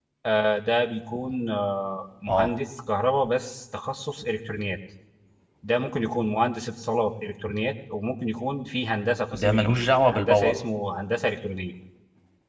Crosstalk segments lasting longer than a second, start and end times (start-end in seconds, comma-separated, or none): none